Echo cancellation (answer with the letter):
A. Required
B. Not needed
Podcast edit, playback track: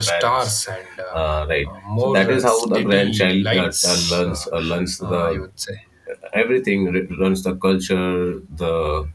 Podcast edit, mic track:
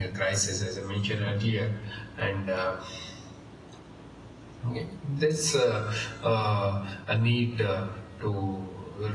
B